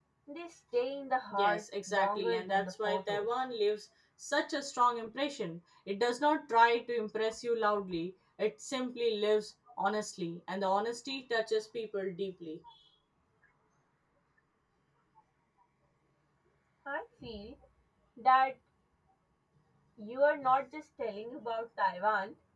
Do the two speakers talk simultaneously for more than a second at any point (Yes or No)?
Yes